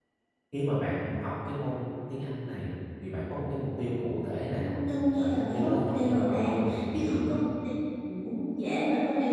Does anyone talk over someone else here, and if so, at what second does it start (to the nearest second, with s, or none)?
5 s